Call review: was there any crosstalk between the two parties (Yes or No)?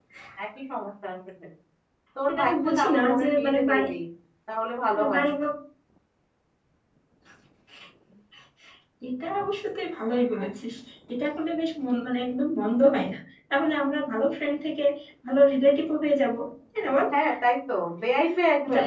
Yes